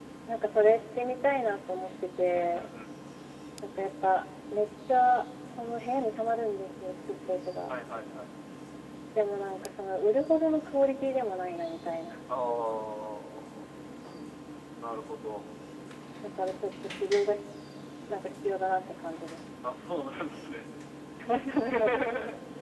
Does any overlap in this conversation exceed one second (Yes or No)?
No